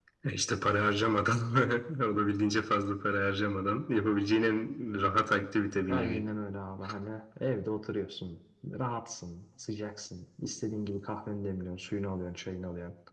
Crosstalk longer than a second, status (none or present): none